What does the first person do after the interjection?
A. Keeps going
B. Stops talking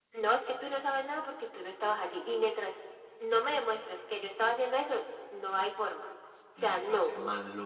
B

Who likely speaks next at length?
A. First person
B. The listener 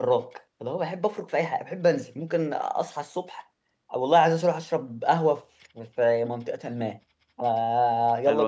A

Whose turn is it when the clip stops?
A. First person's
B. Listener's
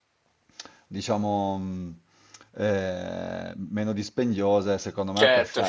B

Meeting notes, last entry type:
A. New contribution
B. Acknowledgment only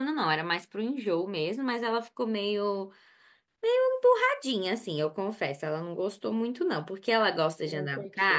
B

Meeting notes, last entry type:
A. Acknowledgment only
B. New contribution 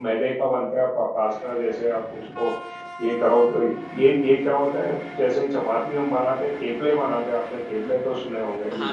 B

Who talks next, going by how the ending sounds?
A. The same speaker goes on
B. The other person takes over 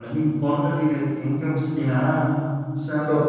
A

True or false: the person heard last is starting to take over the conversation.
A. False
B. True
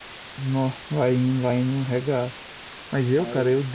A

